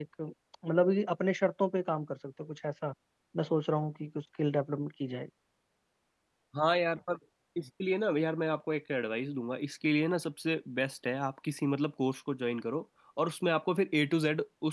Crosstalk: none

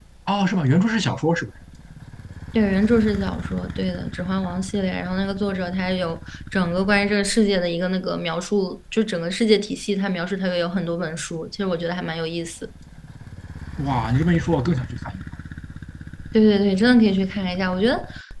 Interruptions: none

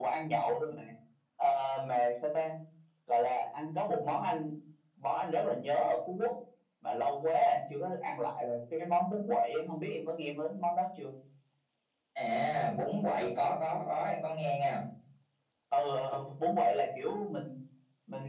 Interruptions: none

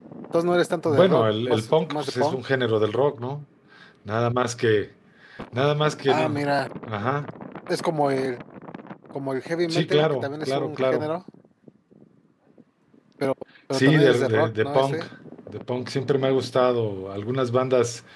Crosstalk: present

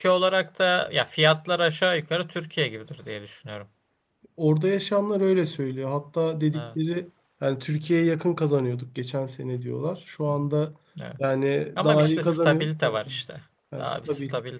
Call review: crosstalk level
present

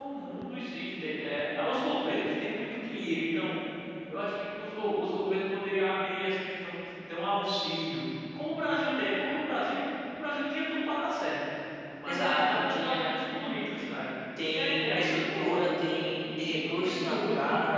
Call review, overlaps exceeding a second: present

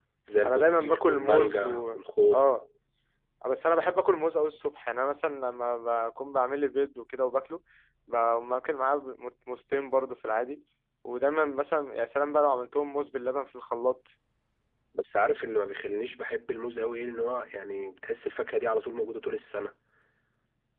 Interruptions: present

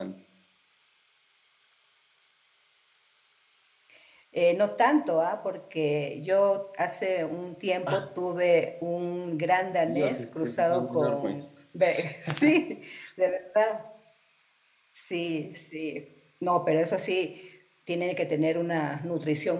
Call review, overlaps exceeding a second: present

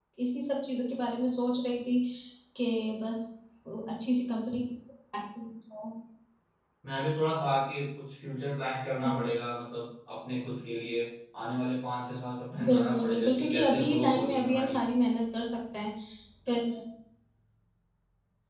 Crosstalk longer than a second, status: present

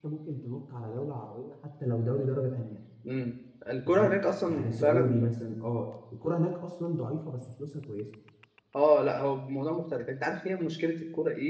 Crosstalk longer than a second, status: present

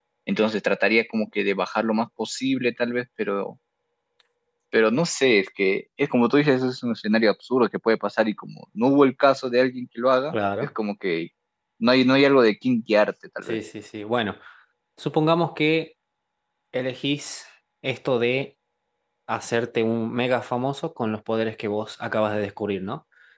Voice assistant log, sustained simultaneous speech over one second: none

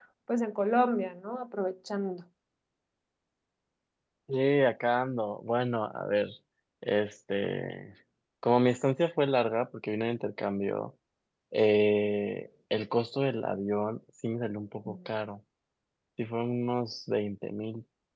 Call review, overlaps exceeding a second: none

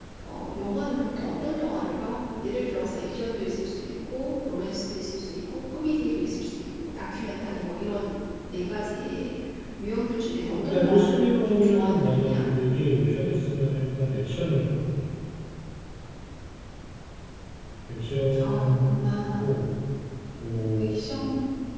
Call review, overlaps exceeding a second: present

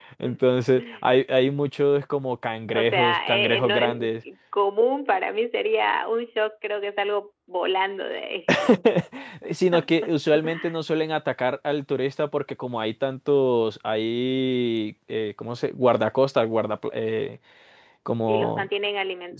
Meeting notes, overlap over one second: present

